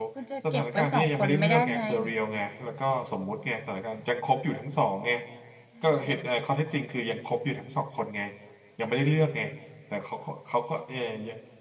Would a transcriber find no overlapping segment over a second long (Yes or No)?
No